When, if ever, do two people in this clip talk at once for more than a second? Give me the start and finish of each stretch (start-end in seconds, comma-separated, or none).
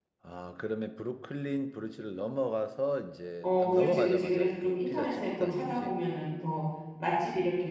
3.4-5.9